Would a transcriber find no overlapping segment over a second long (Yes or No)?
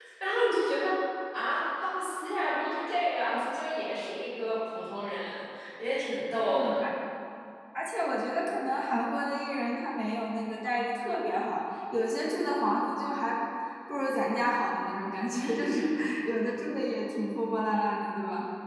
Yes